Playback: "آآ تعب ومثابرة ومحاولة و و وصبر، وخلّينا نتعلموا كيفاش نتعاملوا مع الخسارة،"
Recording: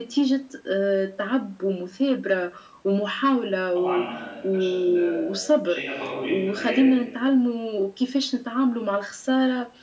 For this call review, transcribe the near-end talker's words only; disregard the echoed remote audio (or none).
طبعًا آه، الفشل آه، شيء ضروري في الحياة.